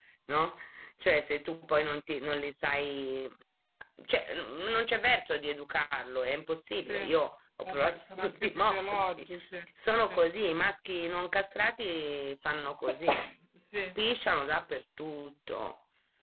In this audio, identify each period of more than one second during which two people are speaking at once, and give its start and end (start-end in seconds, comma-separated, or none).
7.6-9.1